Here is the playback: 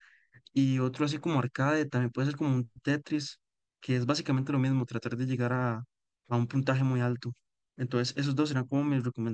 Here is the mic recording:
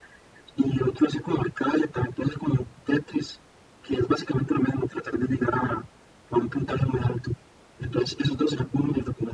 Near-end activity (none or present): none